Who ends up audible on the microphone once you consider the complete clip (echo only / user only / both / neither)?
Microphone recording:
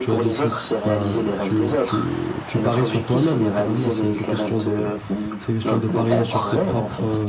both